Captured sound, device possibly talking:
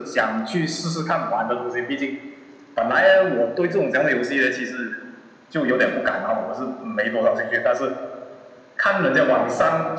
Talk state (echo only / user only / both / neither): echo only